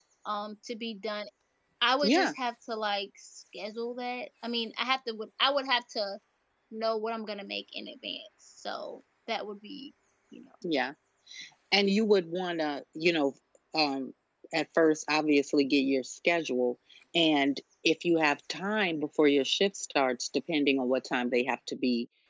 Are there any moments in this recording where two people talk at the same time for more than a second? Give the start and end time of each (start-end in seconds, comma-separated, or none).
none